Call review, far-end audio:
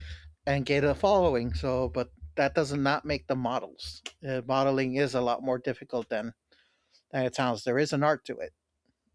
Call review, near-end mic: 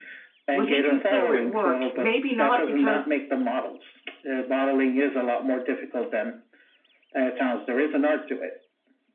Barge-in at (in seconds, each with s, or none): 0.5 s